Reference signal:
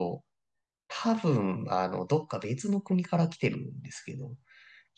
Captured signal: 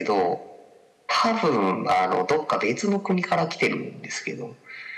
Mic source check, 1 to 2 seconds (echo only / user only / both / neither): echo only